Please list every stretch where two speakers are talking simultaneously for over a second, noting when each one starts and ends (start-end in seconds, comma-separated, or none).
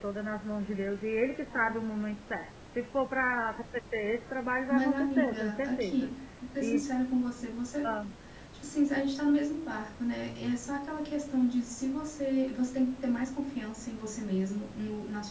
4.7-6.1